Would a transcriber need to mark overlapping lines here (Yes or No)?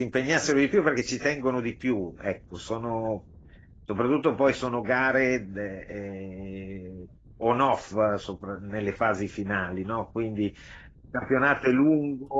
No